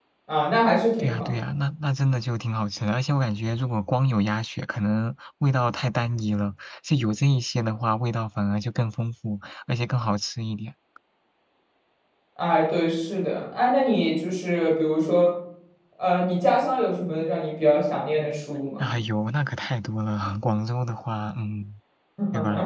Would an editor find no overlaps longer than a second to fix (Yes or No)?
Yes